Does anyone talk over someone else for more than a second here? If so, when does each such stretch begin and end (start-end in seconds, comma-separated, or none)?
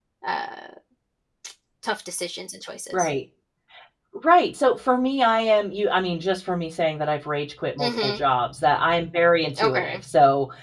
none